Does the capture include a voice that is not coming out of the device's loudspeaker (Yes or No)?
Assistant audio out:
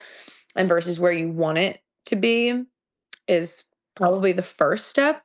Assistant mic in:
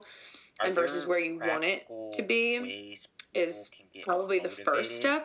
Yes